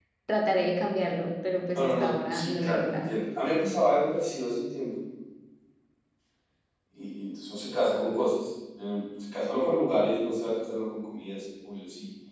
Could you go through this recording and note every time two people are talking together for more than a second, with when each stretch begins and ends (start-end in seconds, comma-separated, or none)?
1.7-3.1